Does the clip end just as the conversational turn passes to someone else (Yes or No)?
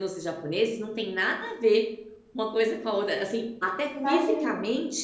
No